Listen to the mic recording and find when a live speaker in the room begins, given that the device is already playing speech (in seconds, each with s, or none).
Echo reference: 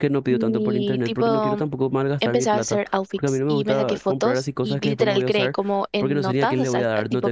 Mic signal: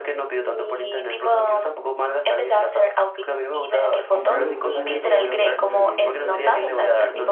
4.1 s